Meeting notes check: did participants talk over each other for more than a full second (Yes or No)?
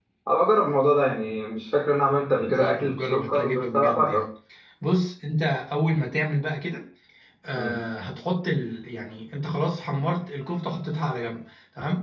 Yes